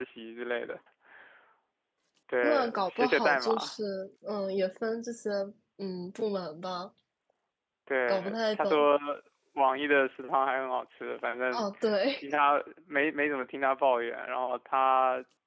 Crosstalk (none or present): present